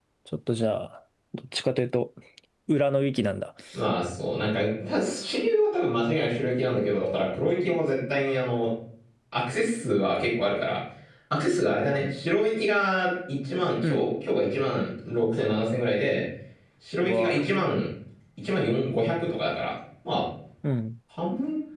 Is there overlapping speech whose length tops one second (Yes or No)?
No